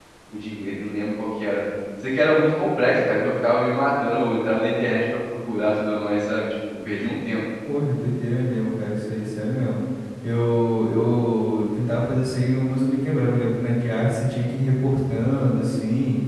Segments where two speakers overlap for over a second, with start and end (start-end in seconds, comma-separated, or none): none